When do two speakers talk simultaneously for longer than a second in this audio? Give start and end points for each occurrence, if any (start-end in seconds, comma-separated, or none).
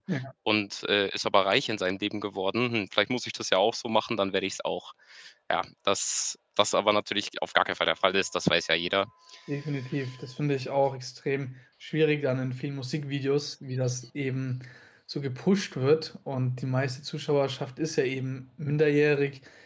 none